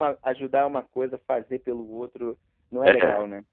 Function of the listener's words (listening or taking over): taking over